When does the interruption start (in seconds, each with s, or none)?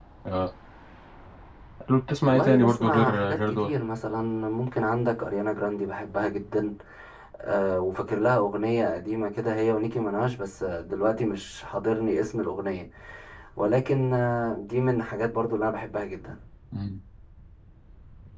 2.3 s